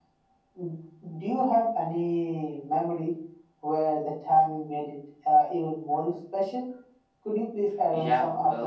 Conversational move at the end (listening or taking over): taking over